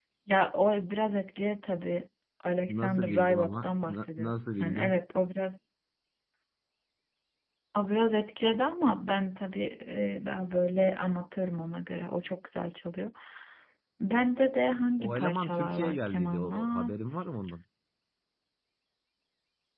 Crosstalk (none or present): present